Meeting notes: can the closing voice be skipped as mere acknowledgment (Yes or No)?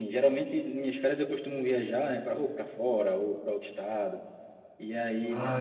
Yes